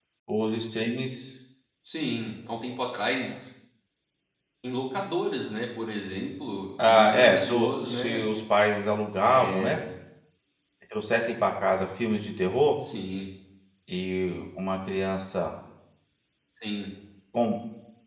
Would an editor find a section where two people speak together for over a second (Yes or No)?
Yes